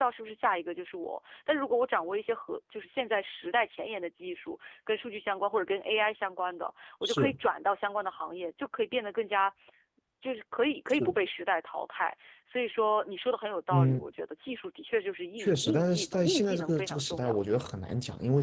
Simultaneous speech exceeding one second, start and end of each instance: 15.4-17.6

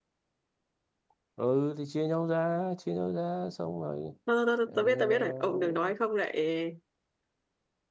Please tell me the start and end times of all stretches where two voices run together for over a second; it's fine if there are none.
4.7-5.9

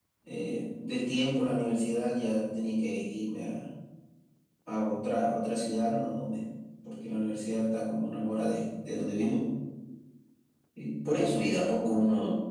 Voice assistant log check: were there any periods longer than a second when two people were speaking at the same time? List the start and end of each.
none

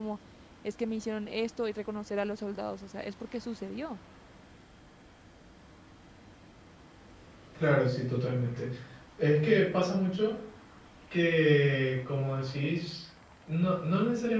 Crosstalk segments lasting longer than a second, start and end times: none

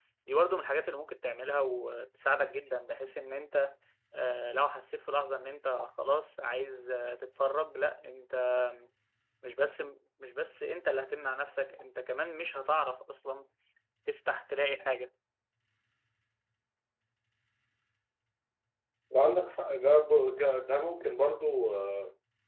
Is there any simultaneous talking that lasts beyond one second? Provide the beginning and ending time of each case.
none

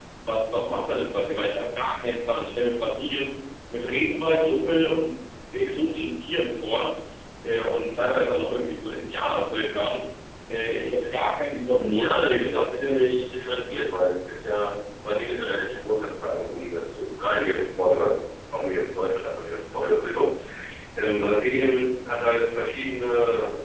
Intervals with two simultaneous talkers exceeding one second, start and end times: 11.7-13.1

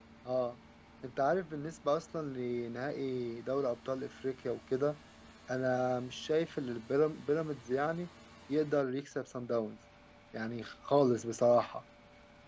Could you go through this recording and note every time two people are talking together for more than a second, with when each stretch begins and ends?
none

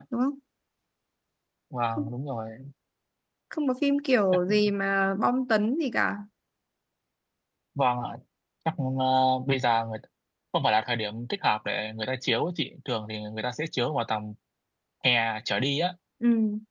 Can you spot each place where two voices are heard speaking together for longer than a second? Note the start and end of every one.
none

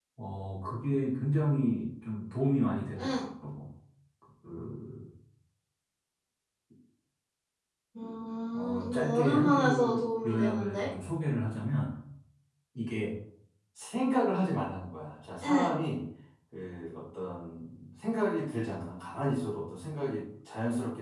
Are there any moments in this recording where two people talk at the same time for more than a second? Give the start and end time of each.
8.5-10.9

